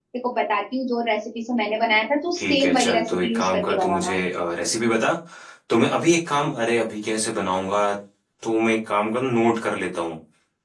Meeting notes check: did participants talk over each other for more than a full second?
Yes, from 2.4 s

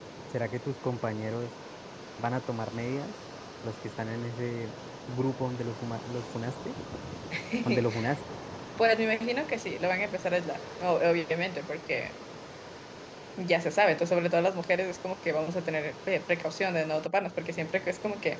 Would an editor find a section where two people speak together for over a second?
No

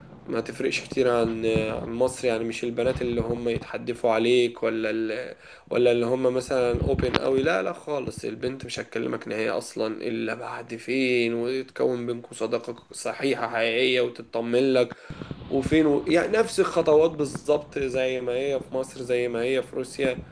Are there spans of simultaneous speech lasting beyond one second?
No

